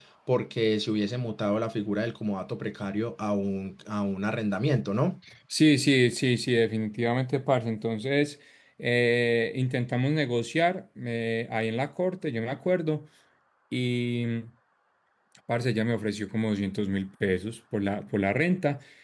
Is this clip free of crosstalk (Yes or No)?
Yes